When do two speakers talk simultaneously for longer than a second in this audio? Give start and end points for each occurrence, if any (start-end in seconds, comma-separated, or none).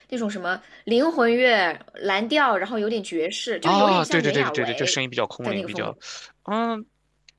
3.6-5.0